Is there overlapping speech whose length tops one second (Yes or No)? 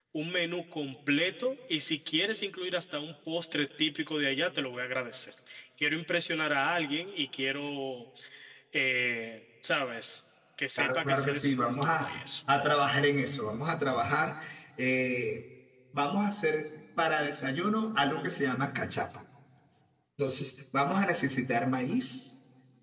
Yes